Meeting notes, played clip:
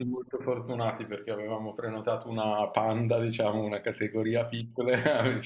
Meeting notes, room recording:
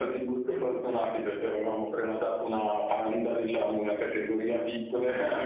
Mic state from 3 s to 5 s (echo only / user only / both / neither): echo only